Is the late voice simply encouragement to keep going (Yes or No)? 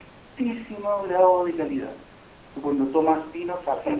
Yes